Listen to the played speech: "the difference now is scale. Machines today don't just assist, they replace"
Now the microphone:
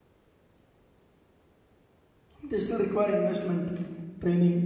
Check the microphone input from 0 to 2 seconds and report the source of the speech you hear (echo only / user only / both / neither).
neither